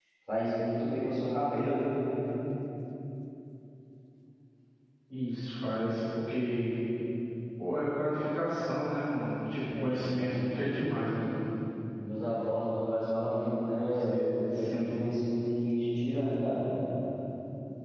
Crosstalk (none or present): present